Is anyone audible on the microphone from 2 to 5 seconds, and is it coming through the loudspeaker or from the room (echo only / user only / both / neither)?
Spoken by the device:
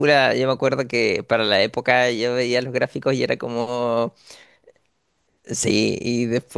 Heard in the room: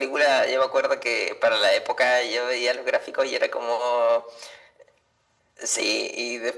echo only